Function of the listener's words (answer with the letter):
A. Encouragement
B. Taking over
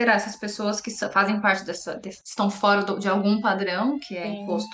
A